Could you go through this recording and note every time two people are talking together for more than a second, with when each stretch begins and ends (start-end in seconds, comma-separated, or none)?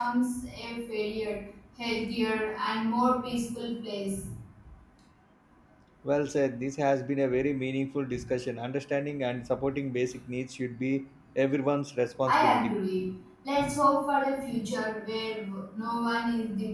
none